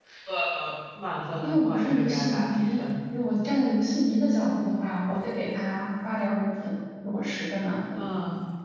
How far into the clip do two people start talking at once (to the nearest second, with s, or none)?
1 s